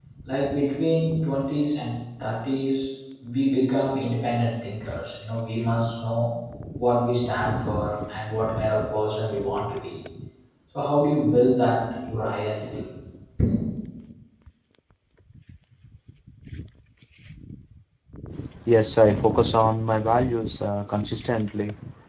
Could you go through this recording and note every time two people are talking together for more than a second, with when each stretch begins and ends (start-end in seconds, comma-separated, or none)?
none